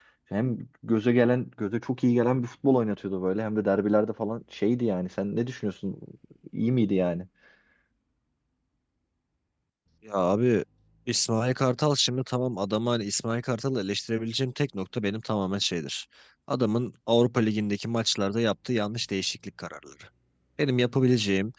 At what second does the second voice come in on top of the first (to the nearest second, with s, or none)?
none